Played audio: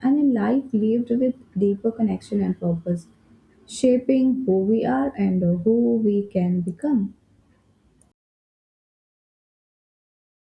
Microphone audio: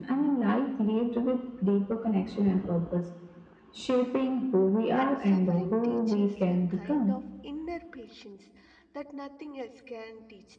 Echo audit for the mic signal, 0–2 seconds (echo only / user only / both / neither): echo only